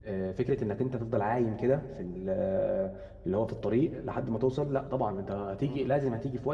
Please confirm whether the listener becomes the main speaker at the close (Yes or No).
No